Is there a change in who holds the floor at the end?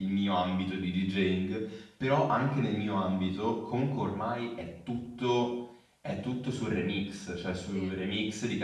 No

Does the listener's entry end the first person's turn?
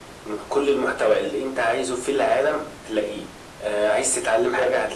No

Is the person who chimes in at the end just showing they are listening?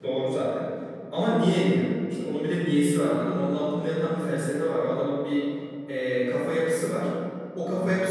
Yes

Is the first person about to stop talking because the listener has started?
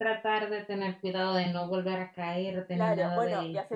Yes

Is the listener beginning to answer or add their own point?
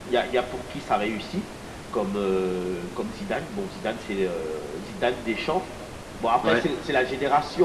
No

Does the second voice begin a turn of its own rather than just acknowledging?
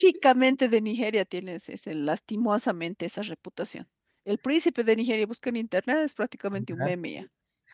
No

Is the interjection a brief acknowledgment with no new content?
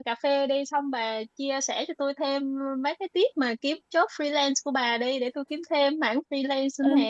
No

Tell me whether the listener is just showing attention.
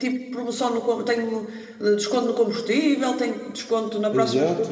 No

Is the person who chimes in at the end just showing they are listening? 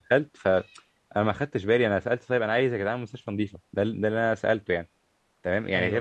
Yes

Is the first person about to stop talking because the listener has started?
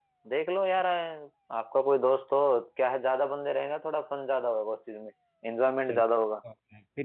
Yes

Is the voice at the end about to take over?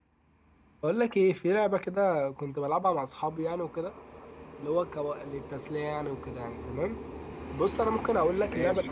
No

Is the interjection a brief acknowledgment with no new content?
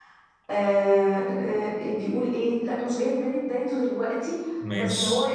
Yes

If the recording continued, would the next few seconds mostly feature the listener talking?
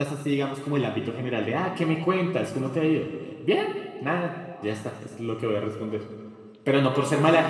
No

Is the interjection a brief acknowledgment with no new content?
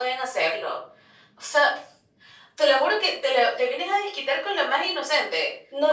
No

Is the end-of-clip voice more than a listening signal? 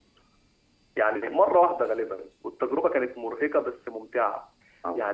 No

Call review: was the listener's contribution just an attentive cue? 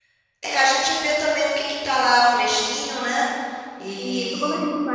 No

